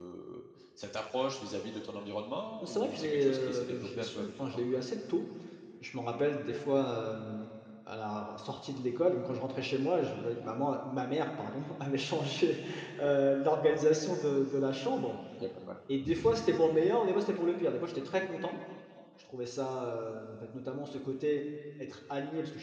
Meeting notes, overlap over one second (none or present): present